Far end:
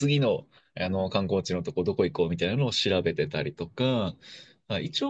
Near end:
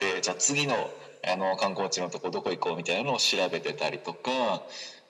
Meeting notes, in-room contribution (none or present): none